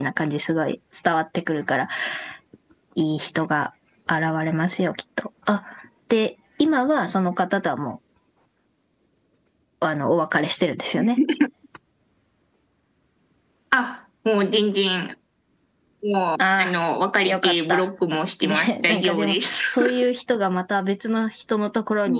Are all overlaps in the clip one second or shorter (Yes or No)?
No